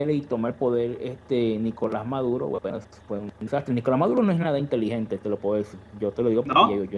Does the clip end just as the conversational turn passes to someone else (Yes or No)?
No